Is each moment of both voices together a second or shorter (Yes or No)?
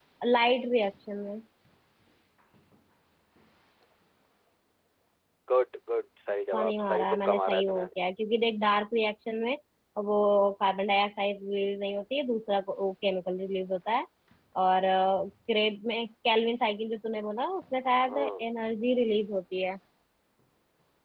No